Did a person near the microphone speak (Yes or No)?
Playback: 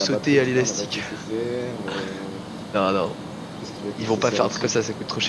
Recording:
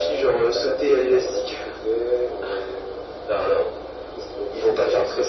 No